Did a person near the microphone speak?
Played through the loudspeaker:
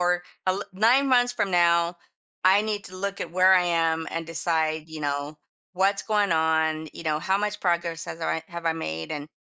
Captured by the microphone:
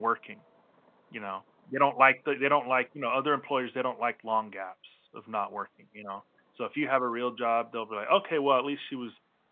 Yes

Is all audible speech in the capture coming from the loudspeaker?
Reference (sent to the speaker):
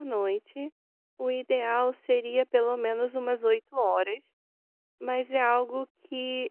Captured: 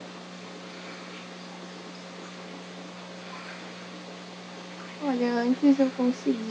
No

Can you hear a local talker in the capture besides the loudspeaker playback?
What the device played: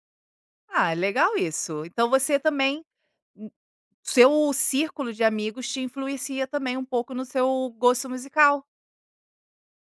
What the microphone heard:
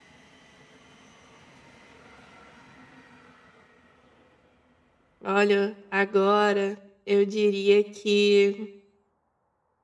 Yes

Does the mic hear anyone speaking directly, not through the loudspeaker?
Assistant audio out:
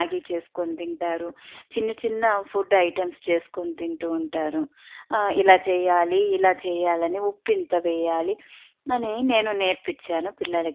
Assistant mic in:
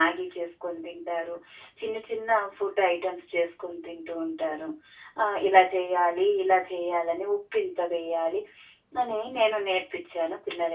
No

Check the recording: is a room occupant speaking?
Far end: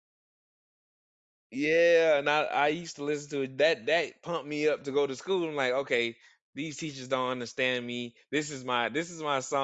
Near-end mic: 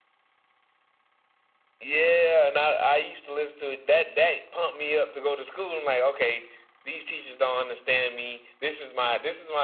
No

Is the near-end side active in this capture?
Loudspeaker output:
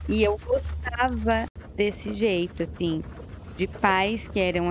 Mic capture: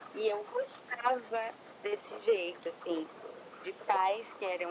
No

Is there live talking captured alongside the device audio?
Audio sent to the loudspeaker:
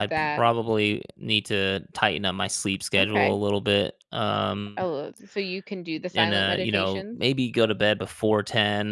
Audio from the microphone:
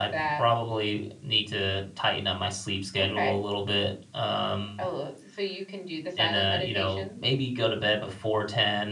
No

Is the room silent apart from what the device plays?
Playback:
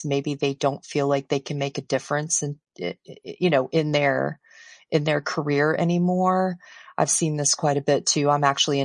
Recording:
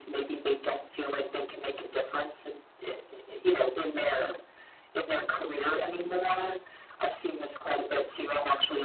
Yes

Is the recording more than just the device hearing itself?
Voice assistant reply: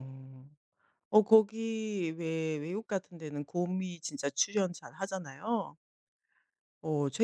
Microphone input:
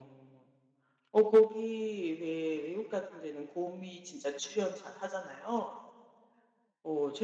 No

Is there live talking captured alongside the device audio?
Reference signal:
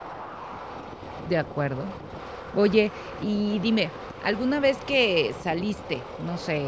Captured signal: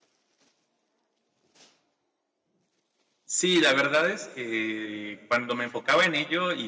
Yes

